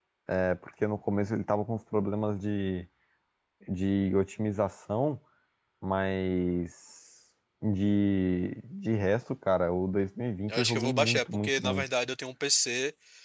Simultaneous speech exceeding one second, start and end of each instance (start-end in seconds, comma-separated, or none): 10.5-11.8